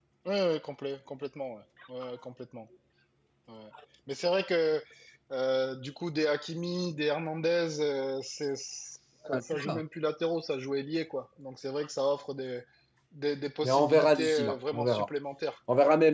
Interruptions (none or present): present